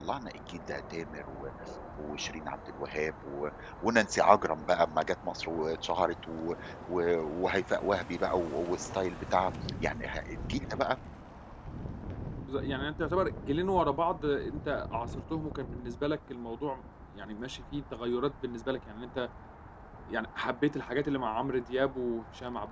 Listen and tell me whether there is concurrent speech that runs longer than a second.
No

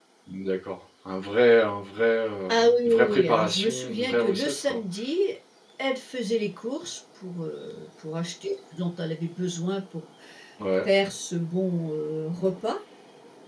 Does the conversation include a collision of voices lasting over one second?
Yes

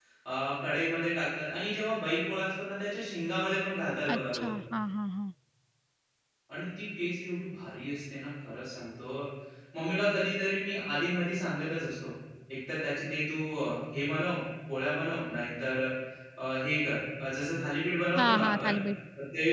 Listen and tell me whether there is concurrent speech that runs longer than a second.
No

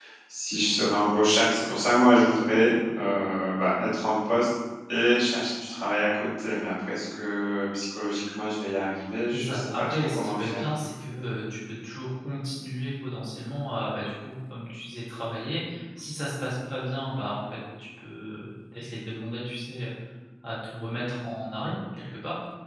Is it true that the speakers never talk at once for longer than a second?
No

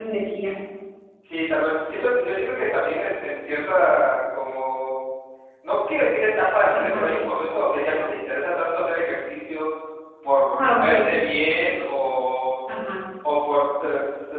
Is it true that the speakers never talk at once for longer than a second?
Yes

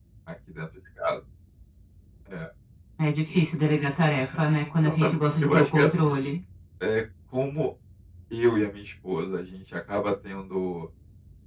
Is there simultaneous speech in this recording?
Yes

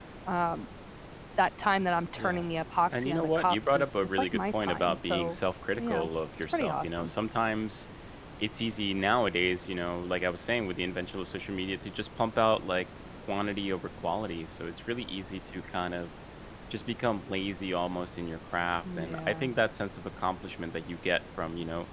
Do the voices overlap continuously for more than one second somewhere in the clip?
Yes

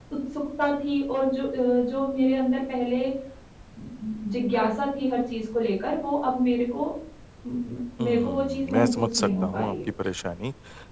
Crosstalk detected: Yes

